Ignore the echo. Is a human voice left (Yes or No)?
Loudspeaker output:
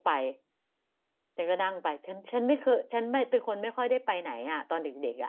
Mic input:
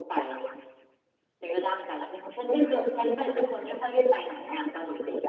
No